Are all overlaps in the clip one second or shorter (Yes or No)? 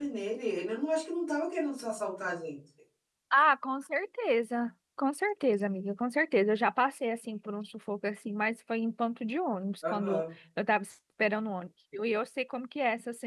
Yes